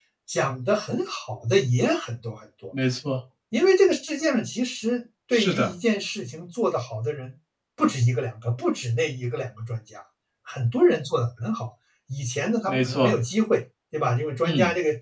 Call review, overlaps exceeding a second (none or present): none